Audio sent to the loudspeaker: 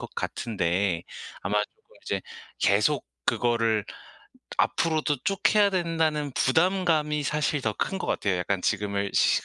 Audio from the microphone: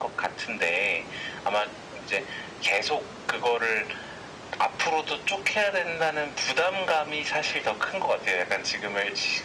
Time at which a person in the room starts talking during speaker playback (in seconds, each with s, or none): none